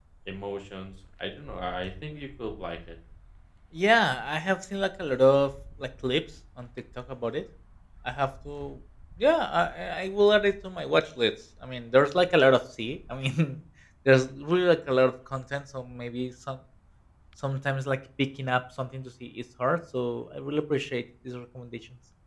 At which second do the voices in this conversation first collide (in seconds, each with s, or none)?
none